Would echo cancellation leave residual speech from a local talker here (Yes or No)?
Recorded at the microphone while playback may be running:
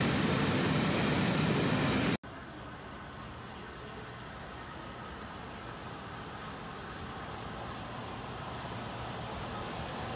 No